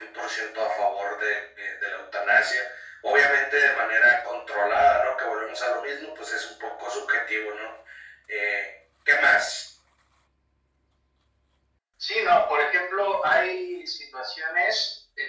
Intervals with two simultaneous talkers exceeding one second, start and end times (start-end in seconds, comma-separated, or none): none